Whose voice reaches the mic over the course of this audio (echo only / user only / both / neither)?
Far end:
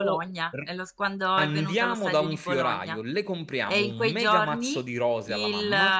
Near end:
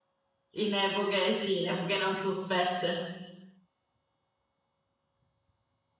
user only